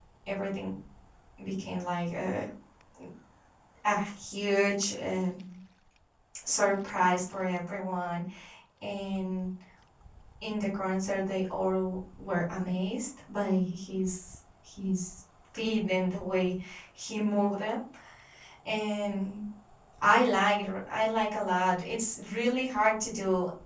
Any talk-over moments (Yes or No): No